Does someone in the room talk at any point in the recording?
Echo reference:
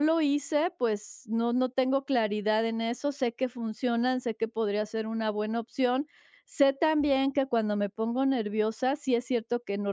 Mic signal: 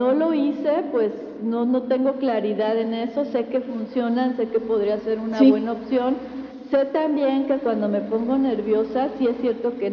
Yes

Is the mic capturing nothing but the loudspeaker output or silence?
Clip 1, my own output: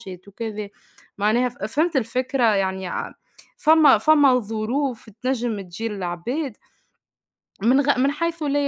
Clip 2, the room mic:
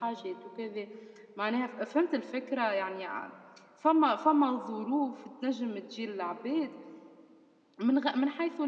Yes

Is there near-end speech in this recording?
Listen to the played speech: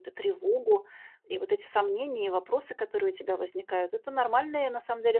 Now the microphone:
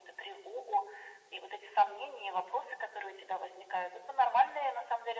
No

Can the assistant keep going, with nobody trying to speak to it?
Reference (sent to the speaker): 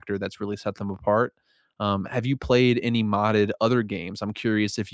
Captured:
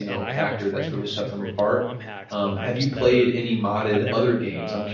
No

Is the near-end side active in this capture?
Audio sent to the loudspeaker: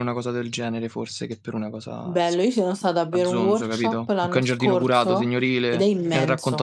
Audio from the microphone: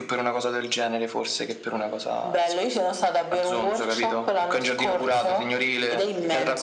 No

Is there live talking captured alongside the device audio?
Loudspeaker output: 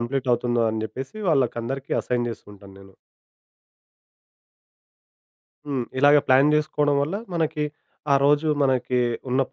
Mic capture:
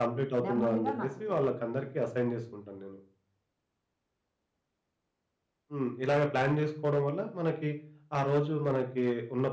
Yes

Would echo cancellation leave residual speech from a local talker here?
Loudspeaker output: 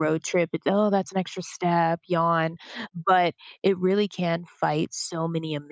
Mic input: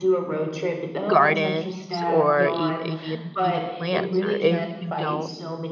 Yes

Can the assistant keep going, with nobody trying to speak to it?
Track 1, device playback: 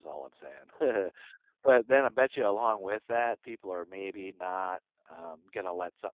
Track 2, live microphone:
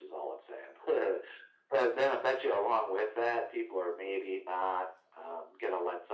Yes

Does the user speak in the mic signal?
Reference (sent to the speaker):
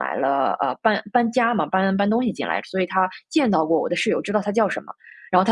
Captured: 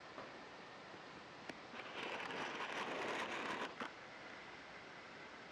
No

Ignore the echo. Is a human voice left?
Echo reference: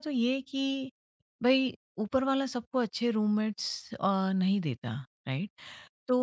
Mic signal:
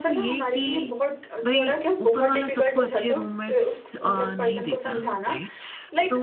Yes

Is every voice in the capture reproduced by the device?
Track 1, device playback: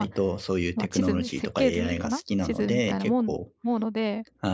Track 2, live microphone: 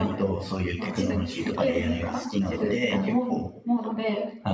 Yes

